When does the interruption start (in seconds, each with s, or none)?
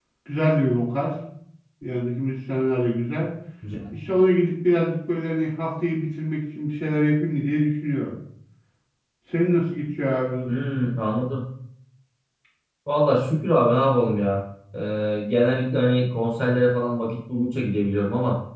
none